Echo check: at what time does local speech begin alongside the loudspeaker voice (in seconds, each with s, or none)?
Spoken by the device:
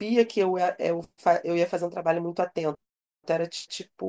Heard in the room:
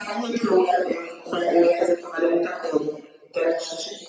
none